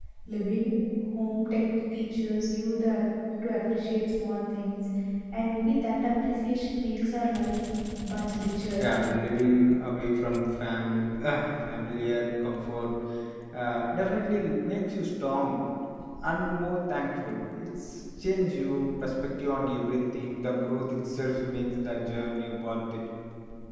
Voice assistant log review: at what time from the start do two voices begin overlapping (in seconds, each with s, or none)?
none